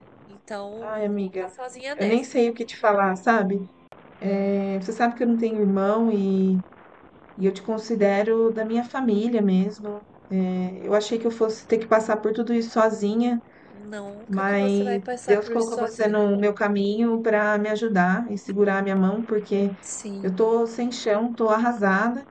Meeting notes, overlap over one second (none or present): present